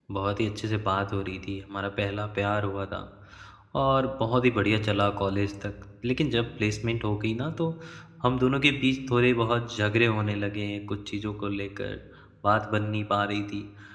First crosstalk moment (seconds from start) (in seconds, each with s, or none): none